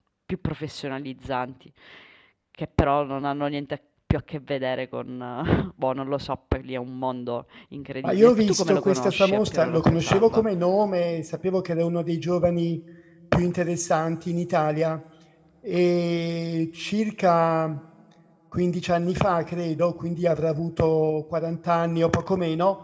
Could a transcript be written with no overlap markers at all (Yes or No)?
No